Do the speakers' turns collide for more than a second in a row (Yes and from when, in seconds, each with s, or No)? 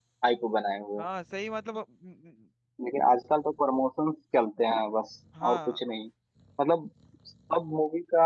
No